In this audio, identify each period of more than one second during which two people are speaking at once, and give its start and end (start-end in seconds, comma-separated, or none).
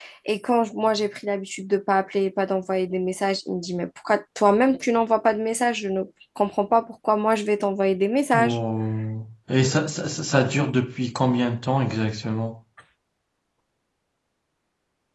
none